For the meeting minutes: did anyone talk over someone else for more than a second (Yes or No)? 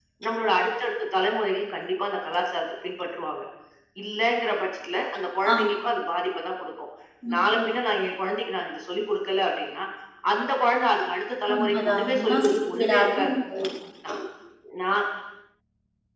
Yes